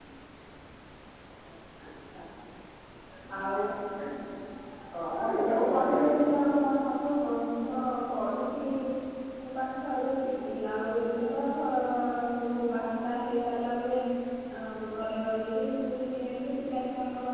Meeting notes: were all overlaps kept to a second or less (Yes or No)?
No